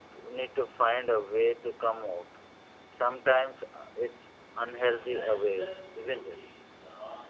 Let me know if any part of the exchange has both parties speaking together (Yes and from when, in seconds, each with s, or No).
Yes, from 4.7 s